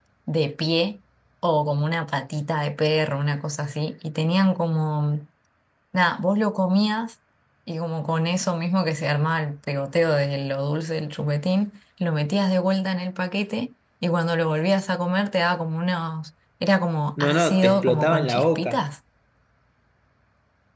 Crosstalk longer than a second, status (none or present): present